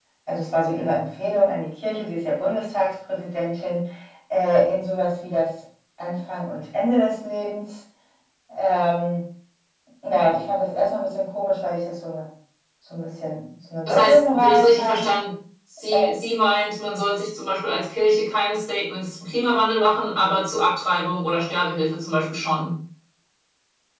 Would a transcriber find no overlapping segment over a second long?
No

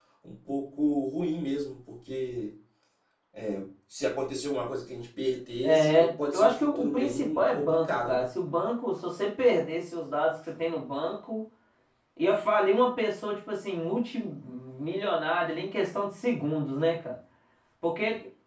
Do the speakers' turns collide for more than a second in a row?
Yes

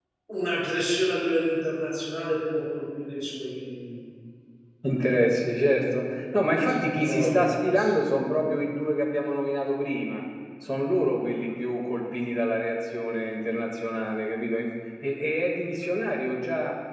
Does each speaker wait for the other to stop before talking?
No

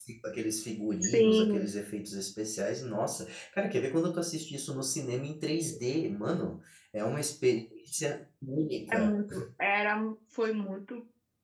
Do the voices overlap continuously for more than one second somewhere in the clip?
No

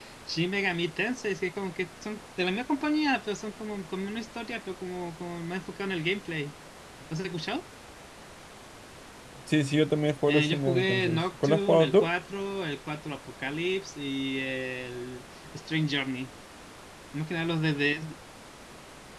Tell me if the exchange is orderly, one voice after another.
No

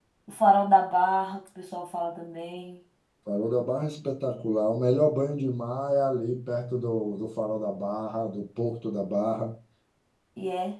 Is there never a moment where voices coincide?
Yes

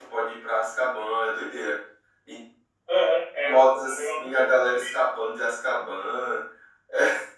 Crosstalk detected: Yes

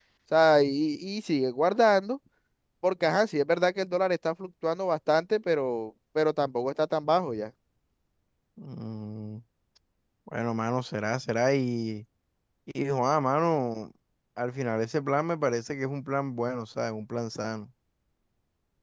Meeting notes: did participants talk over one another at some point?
No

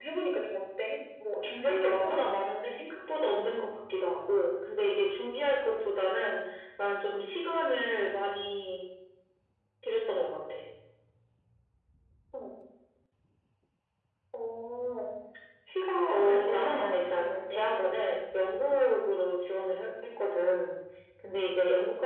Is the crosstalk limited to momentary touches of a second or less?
No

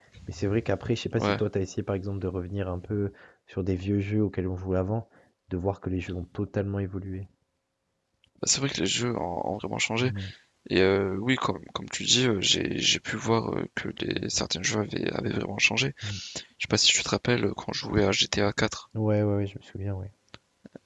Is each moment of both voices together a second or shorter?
Yes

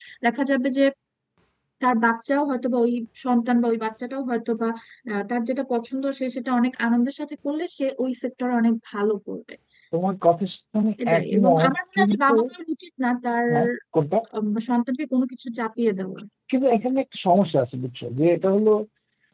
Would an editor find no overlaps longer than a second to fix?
No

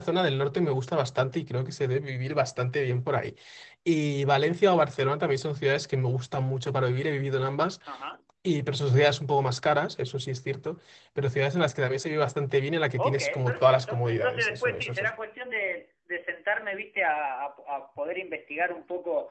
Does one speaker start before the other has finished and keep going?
Yes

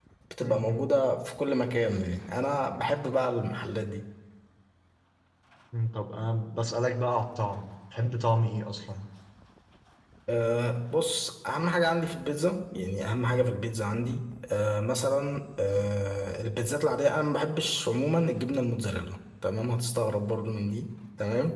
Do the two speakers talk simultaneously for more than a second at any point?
No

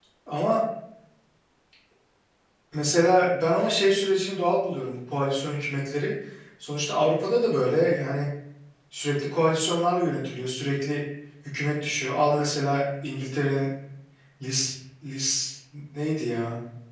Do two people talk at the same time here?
No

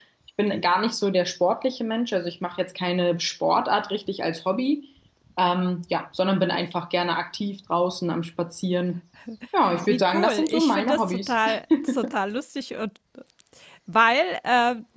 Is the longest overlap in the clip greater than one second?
Yes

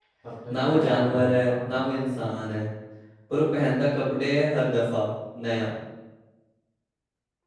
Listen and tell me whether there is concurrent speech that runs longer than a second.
Yes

